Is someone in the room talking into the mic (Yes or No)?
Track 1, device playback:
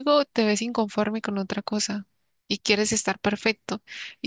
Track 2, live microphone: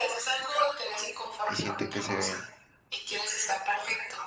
Yes